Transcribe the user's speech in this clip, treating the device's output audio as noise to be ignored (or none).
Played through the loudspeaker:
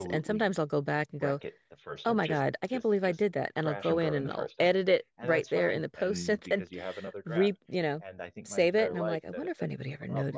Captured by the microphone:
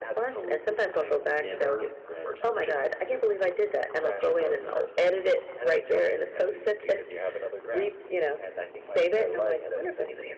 I've never read a